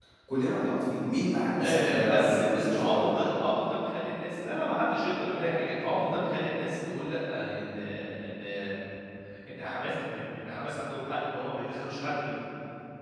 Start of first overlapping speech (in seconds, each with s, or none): 1.6 s